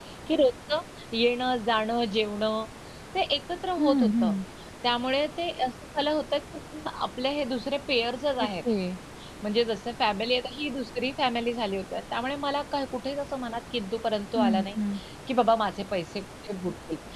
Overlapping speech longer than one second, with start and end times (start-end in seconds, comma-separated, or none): none